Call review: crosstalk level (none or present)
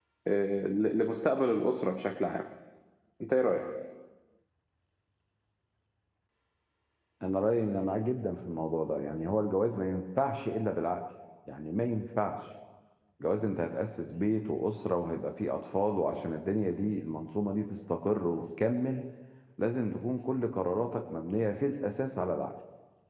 none